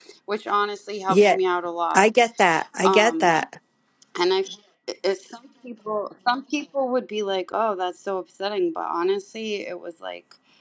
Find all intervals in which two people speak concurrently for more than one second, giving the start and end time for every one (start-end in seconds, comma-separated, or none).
none